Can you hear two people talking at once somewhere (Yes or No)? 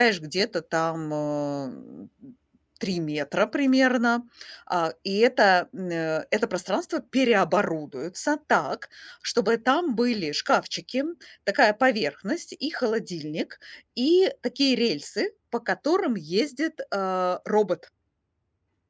No